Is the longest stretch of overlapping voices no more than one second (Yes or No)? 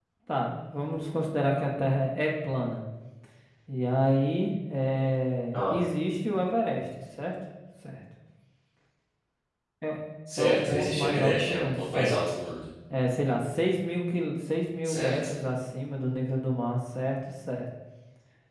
No